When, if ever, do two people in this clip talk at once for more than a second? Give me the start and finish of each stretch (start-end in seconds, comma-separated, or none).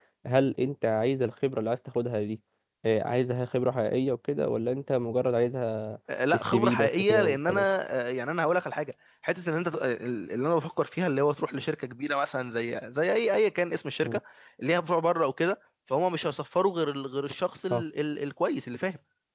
6.3-7.6